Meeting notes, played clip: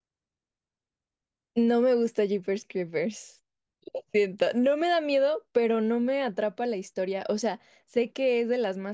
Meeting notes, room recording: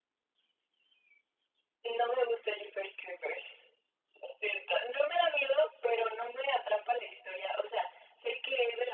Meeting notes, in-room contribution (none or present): none